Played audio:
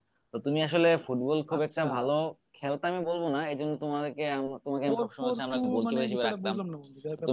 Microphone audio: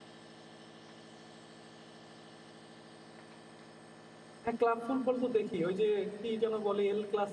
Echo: none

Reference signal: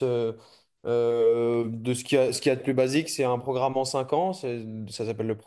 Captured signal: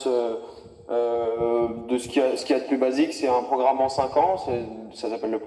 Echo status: present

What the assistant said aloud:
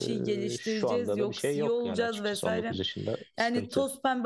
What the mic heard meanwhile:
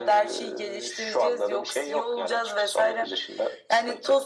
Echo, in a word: present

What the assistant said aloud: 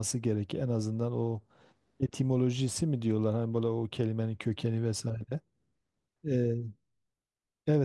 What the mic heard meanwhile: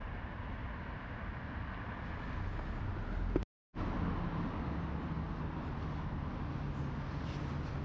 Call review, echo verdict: none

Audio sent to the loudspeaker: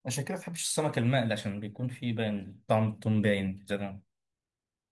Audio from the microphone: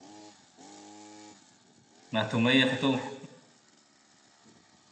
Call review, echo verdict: none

